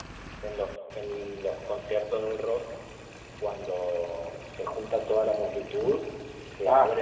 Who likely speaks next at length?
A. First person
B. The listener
A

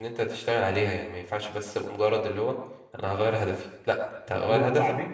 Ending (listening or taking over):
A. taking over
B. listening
A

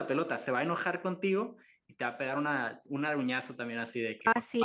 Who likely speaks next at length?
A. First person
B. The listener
B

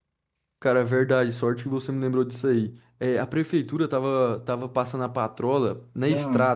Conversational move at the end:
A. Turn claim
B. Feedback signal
B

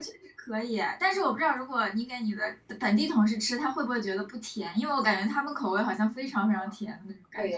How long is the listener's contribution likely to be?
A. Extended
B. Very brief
A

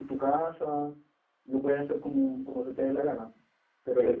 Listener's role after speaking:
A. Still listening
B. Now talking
B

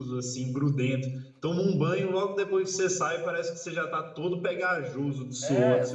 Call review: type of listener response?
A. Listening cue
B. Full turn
B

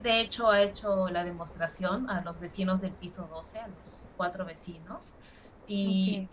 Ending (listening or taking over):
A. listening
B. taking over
A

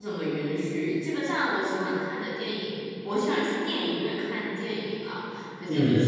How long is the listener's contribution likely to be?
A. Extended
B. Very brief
B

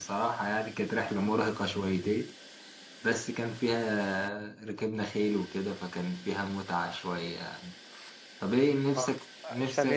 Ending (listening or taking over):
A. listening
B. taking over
B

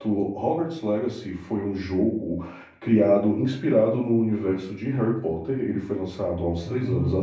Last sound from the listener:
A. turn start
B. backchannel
B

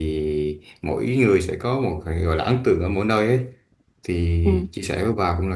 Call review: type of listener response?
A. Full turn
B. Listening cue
B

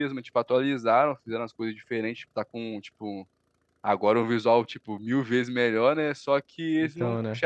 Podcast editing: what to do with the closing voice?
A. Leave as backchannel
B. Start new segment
A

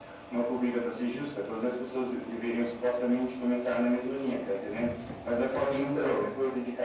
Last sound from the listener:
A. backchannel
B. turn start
A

